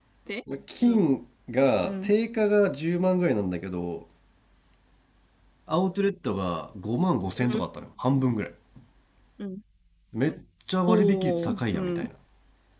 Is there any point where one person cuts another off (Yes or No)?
Yes